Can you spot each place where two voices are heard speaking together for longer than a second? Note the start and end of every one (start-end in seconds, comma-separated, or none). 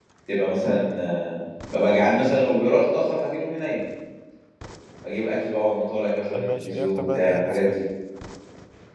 6.3-7.8